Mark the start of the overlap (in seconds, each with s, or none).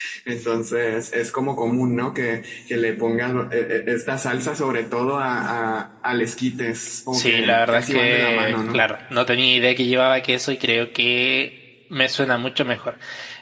7.1 s